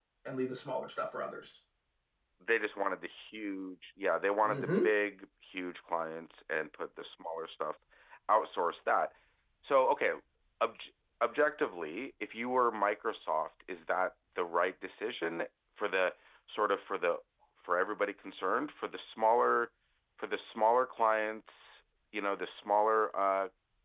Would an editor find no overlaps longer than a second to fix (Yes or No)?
Yes